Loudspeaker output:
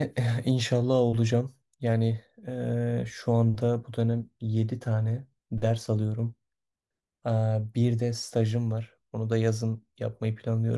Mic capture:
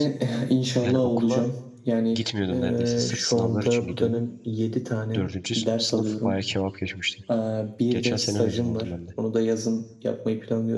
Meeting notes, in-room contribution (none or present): present